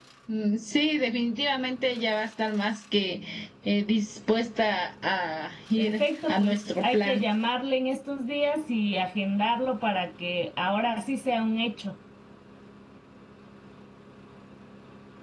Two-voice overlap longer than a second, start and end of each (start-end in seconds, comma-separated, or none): 5.8-7.2